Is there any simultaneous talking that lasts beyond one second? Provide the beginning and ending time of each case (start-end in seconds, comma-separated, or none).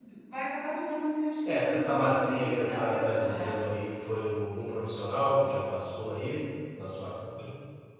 1.4-3.5